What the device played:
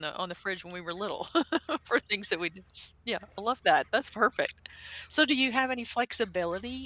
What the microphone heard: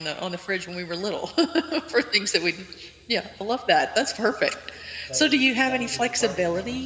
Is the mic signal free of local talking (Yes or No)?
No